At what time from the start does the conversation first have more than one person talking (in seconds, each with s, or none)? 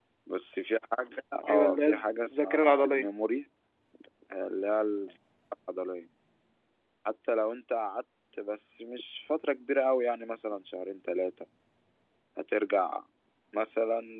1.4 s